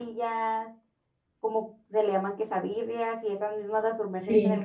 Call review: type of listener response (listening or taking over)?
listening